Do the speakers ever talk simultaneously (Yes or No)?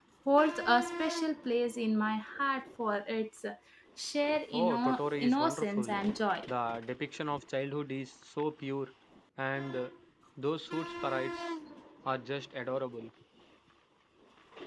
Yes